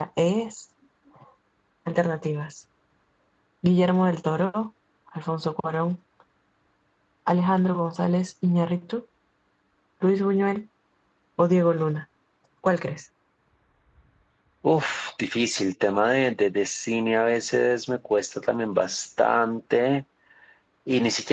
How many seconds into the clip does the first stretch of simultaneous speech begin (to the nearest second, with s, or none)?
none